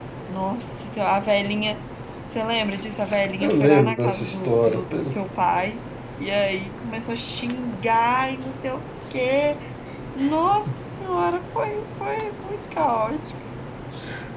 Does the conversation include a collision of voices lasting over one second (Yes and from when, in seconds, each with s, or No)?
Yes, from 3.4 s